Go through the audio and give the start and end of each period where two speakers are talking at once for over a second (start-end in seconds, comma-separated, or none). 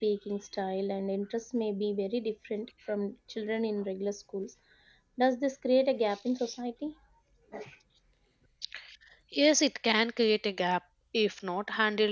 none